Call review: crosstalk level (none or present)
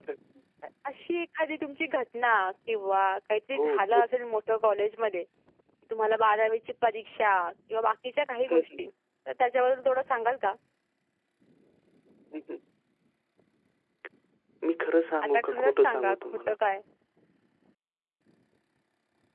present